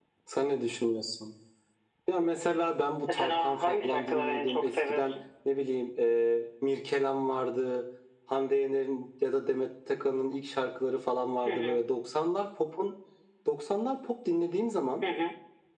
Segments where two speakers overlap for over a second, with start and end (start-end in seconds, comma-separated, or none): 3.1-5.1